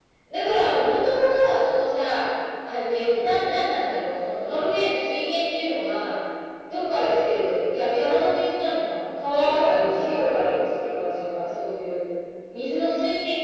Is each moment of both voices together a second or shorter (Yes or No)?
No